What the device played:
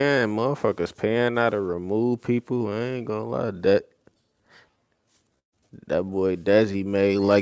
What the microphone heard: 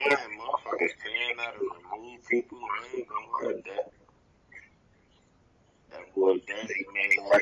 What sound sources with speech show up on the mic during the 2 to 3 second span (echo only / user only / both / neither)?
echo only